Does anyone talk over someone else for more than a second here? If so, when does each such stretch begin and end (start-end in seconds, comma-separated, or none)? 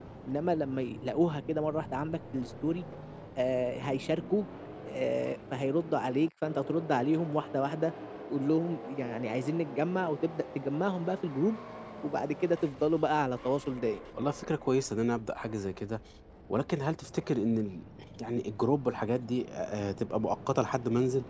none